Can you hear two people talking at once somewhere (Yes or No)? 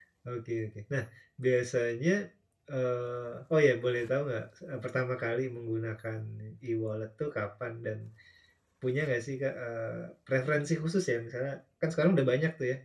No